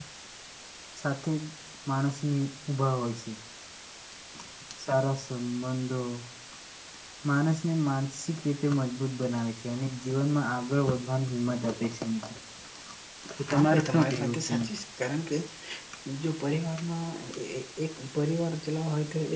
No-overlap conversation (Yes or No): No